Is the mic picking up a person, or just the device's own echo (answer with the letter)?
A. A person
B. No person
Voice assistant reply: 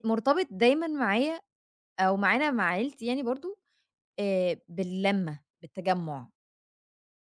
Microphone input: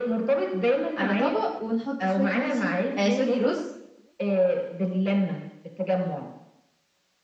A